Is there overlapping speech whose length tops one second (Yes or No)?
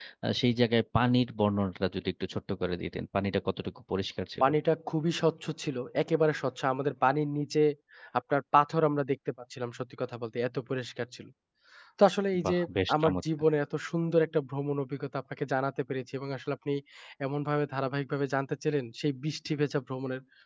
No